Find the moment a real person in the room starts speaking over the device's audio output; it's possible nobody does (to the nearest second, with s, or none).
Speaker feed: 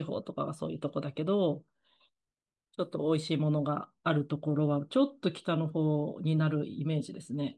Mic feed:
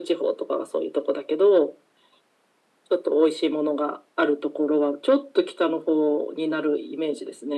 none